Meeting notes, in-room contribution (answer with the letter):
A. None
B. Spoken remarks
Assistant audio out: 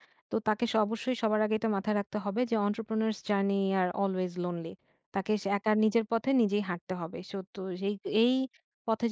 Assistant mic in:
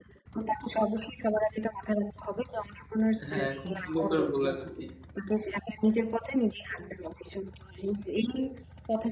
B